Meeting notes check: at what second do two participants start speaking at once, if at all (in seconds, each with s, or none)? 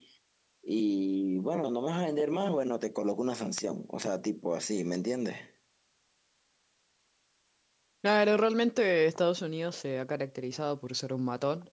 none